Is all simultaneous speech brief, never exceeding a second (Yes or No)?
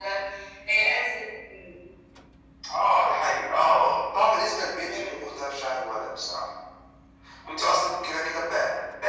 Yes